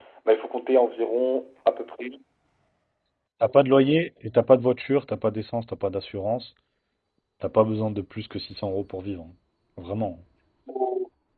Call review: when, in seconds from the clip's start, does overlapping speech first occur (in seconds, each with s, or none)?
none